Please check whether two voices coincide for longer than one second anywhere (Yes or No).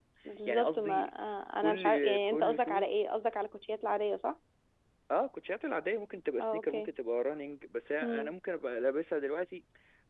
Yes